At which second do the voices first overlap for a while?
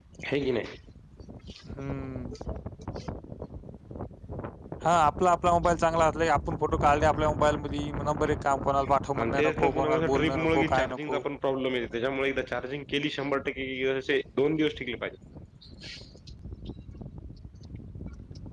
9 s

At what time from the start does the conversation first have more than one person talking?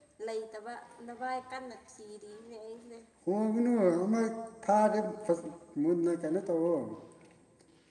none

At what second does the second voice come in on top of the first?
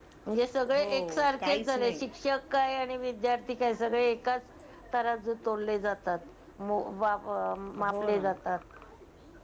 1 s

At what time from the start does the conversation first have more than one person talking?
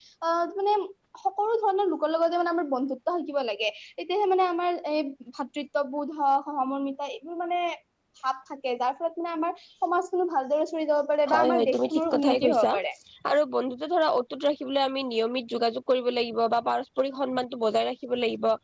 11 s

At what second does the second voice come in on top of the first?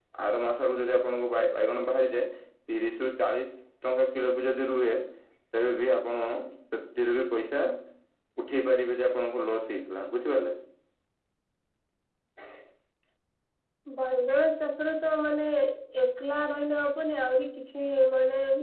none

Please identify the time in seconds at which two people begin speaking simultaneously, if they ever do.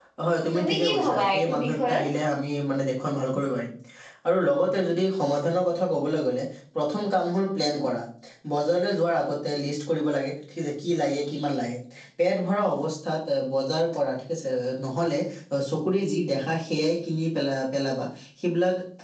1 s

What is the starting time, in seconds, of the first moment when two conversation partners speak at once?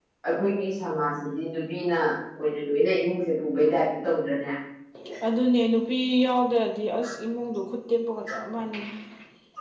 none

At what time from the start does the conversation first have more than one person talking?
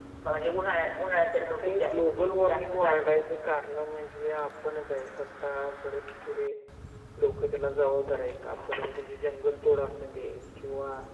1 s

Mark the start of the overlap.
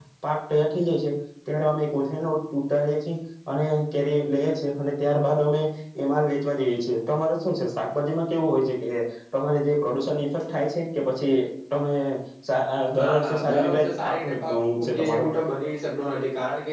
13 s

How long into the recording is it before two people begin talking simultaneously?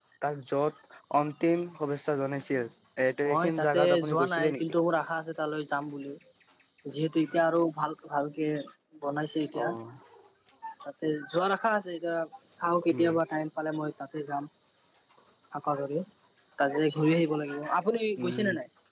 3 s

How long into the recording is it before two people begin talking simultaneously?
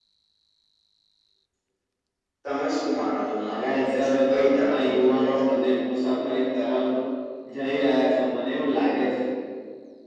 3 s

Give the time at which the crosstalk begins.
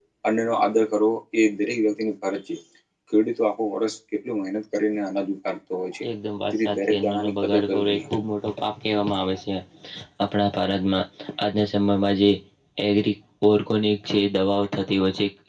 7 s

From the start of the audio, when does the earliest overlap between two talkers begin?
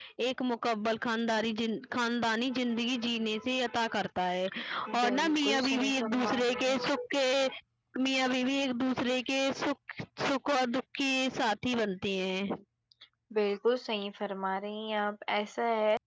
5 s

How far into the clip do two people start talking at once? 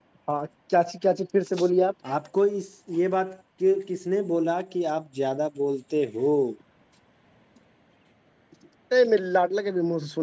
none

